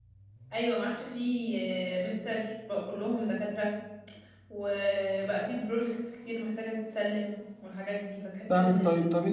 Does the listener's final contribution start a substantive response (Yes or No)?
Yes